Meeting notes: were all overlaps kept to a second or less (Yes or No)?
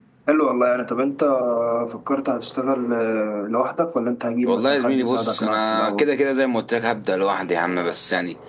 No